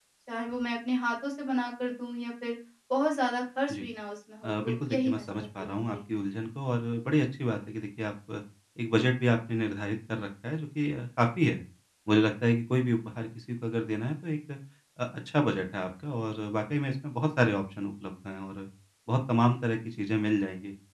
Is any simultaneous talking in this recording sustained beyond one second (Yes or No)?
Yes